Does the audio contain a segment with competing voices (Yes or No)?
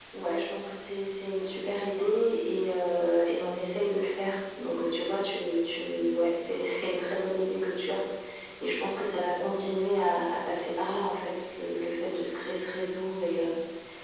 No